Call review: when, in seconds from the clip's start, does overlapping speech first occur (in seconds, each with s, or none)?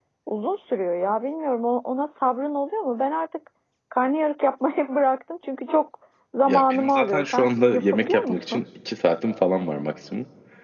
6.5 s